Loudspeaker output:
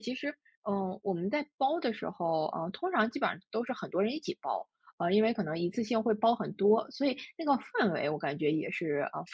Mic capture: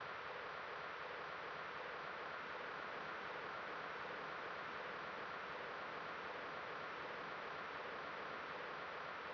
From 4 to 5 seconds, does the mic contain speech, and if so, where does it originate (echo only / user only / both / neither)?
neither